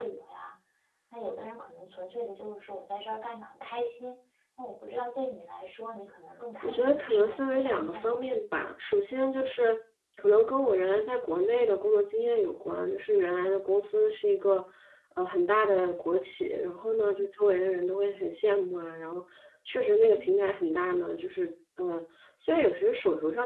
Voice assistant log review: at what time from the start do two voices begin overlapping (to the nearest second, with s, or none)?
7 s